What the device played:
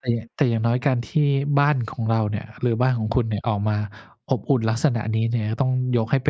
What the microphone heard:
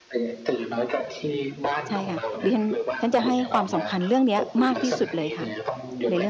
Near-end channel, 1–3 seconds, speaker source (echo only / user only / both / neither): both